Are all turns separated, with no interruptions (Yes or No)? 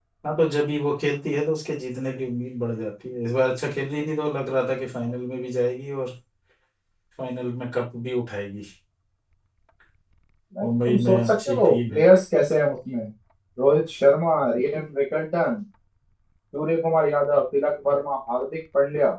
No